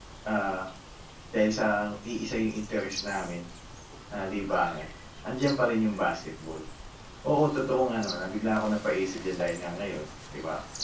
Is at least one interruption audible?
No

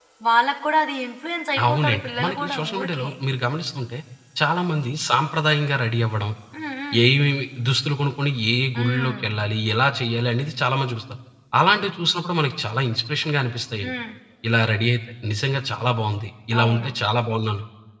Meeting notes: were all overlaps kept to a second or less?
No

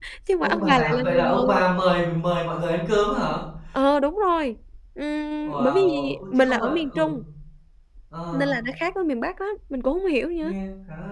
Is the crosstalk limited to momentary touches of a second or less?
No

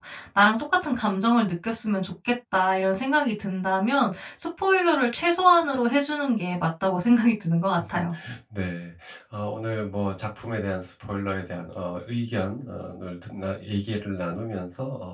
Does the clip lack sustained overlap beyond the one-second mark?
Yes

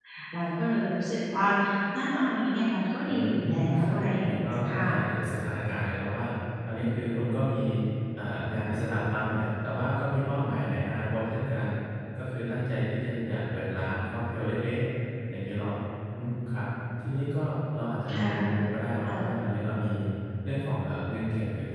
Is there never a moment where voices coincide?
No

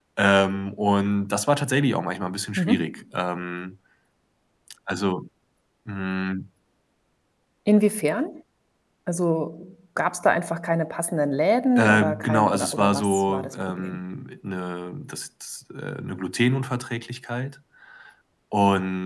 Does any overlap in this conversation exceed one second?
Yes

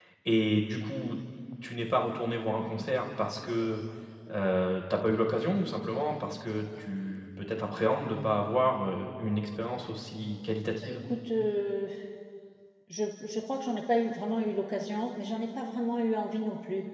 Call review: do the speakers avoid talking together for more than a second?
Yes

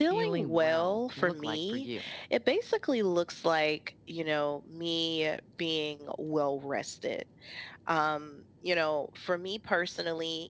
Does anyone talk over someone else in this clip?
Yes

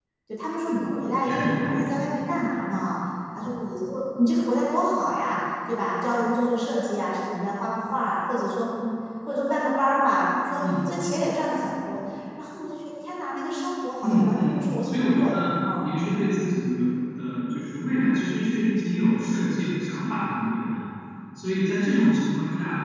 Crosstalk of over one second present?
Yes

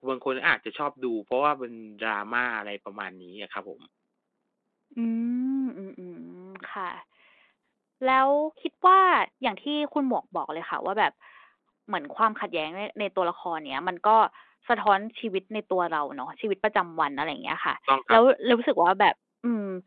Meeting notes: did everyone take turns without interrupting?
Yes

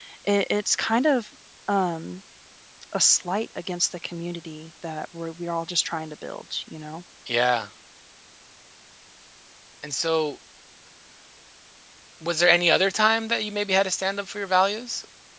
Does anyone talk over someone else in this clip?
No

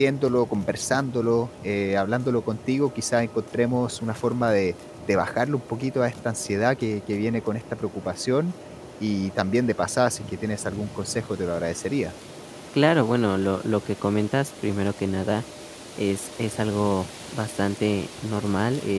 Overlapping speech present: No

